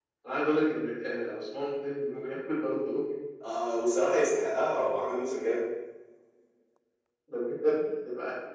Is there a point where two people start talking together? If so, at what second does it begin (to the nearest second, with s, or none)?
none